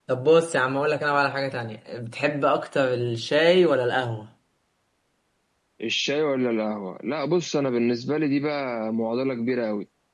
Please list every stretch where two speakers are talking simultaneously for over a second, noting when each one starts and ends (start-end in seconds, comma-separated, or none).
none